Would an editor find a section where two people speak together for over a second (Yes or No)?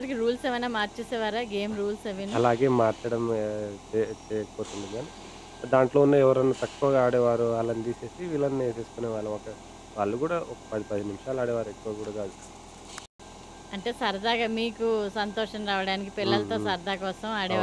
No